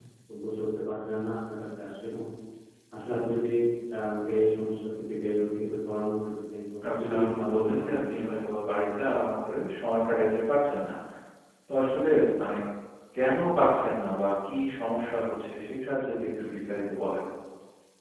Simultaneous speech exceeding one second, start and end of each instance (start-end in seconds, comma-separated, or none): 7.0-8.3